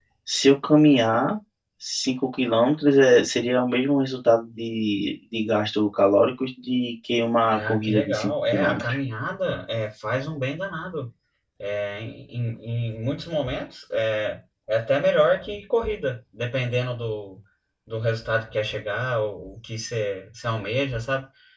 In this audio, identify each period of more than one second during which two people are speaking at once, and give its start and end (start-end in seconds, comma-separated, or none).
7.5-8.9